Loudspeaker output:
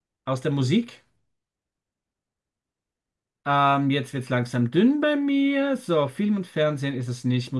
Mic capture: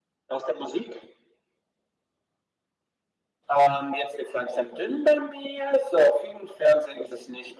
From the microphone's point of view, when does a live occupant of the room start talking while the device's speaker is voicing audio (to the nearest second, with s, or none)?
none